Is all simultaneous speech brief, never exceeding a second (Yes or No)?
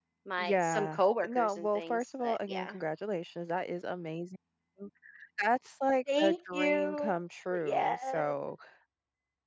No